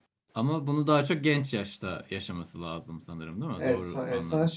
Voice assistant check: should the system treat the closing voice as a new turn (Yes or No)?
Yes